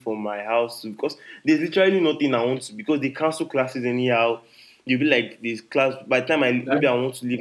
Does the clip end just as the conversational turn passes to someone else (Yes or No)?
No